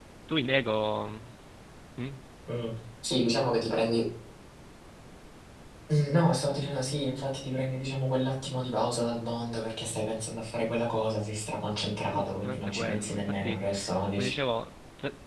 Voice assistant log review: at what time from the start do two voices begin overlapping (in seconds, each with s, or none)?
12.0 s